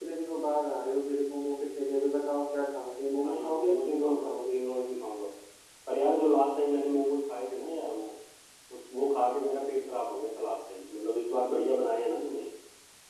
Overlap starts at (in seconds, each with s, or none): 3.1 s